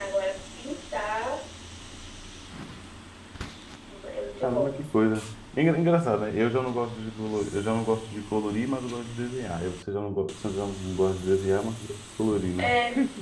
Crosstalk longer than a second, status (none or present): none